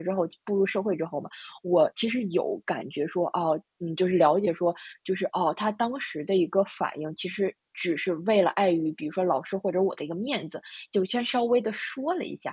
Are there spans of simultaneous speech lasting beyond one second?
No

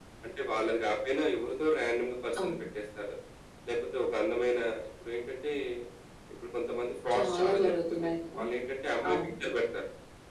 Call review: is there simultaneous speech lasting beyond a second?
Yes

